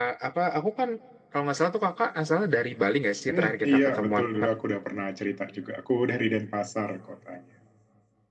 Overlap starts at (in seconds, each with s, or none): 3.3 s